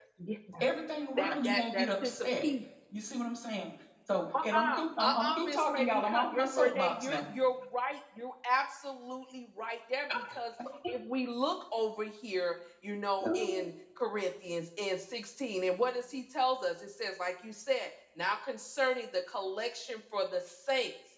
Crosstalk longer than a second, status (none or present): present